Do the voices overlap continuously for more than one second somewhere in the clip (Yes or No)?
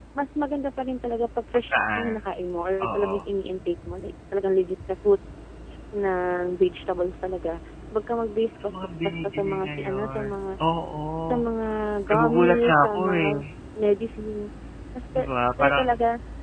Yes